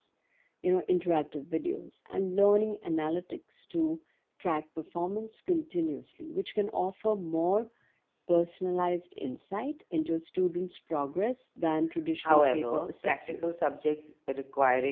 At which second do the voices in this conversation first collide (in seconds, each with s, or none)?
12.2 s